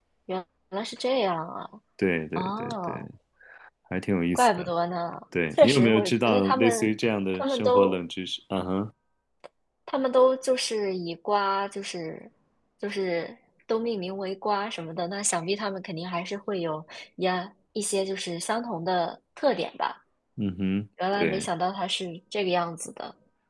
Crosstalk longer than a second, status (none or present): present